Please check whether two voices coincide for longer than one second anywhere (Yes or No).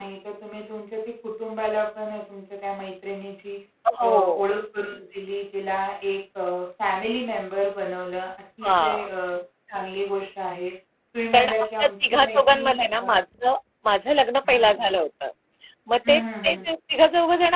Yes